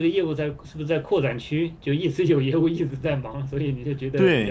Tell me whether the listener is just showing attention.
No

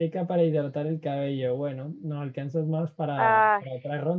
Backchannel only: Yes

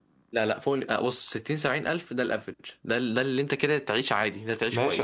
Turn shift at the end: Yes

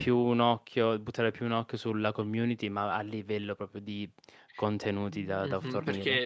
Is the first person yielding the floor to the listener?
Yes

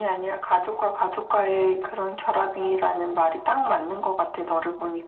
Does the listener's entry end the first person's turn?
Yes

